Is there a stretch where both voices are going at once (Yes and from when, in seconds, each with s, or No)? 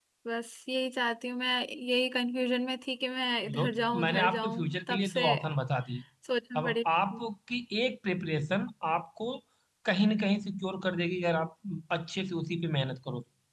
Yes, from 3.6 s